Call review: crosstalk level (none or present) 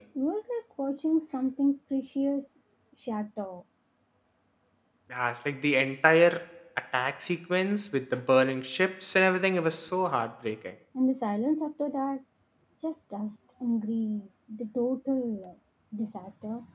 none